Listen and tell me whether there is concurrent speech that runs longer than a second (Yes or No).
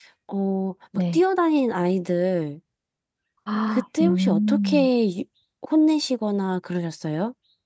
Yes